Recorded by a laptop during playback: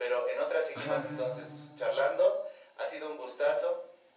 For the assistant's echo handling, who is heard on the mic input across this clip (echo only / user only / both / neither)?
both